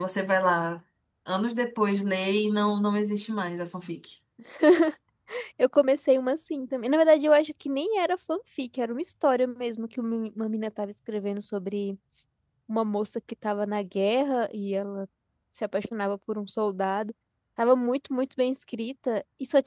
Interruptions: none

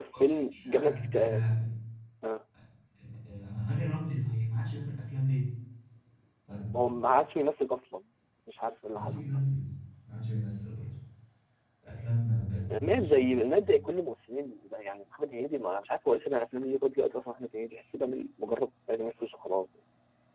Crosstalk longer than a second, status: present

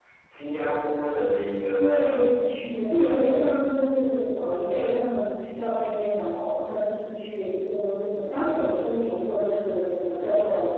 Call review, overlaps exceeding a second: none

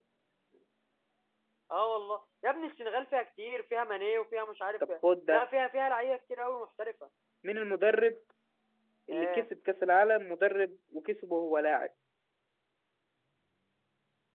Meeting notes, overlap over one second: none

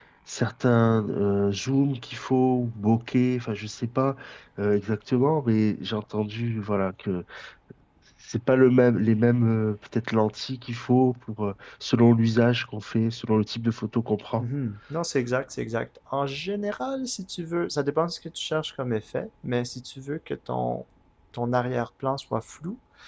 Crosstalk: none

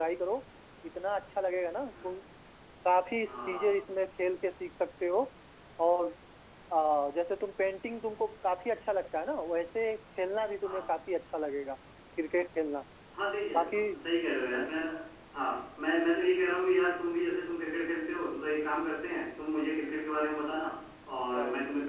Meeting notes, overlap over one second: none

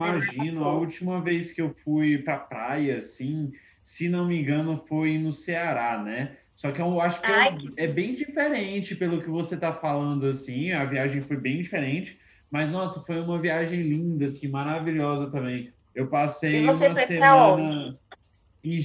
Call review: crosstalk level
present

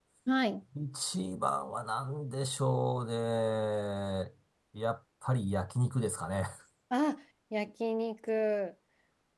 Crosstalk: none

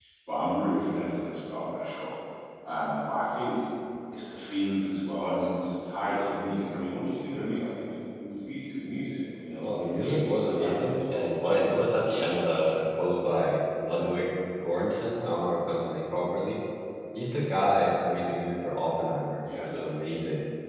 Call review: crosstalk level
present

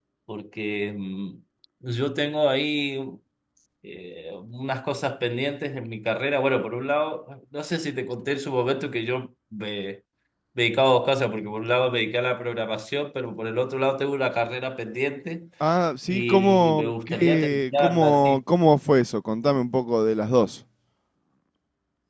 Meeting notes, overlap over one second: present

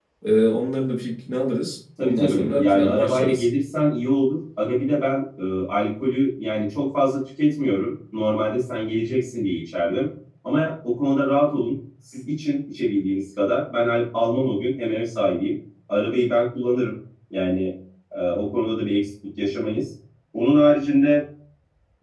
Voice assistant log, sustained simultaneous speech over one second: present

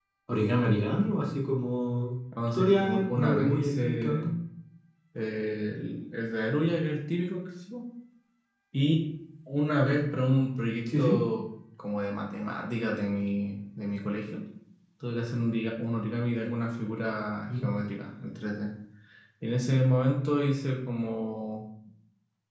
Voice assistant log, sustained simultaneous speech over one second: present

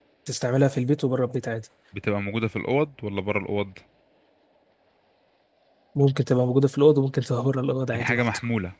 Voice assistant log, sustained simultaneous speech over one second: none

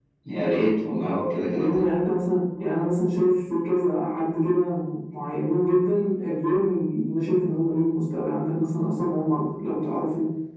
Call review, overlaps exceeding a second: none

